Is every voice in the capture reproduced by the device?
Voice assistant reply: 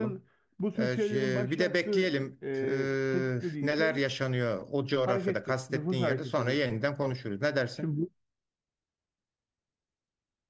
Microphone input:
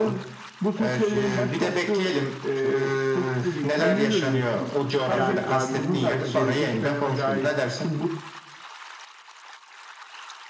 No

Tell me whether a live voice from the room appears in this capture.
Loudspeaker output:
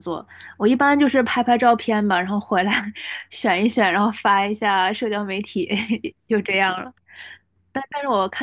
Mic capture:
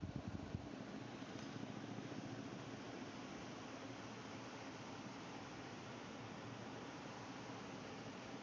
No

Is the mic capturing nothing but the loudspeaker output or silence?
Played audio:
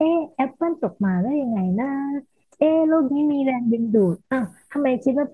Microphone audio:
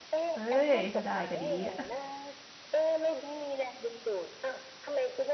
No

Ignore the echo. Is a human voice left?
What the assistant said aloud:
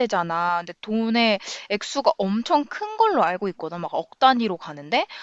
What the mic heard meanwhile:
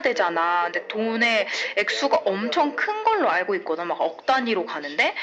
Yes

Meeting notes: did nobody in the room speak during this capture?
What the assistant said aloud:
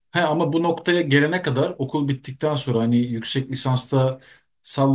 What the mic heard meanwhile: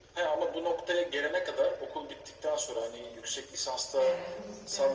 No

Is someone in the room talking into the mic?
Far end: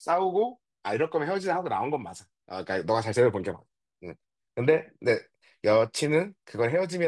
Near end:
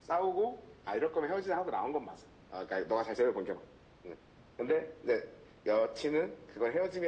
No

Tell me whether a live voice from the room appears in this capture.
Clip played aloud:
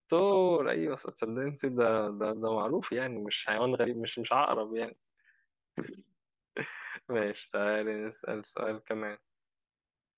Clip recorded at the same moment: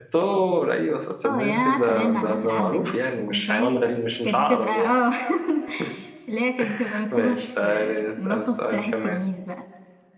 Yes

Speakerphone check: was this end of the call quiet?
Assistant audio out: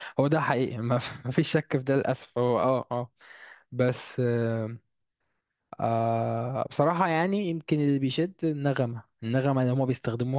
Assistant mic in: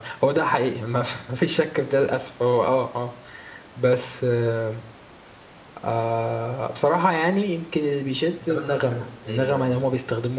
No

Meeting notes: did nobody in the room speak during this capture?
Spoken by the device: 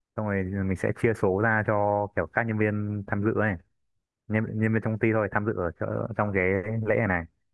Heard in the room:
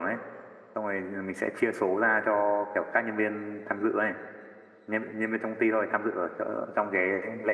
Yes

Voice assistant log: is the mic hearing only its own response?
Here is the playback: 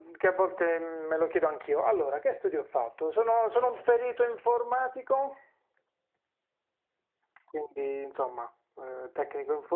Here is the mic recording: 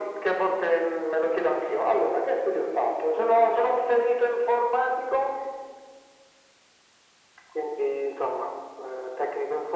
Yes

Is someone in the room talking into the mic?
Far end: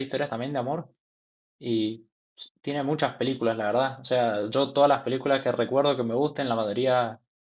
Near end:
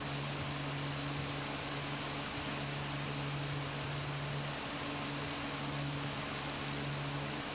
No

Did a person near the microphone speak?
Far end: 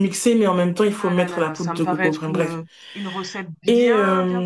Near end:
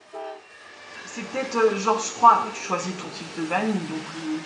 Yes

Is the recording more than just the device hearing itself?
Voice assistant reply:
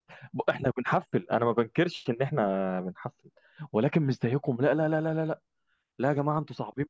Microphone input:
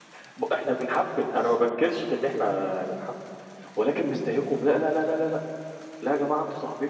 No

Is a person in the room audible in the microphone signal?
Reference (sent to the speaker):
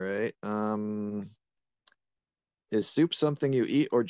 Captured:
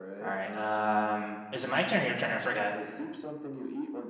Yes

